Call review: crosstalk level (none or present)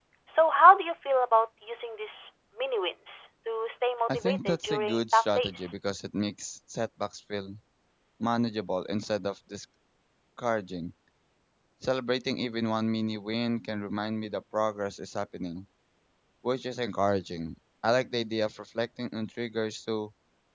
present